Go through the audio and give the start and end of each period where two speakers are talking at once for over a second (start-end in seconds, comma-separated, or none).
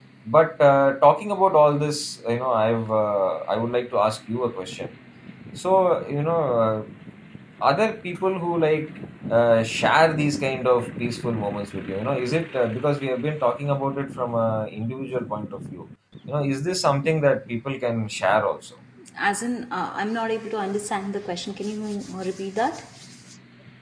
none